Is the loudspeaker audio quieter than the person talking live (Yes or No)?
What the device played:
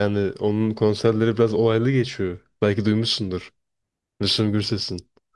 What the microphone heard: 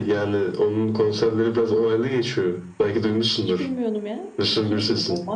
No